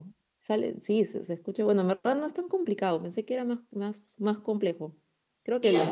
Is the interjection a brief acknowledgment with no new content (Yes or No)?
Yes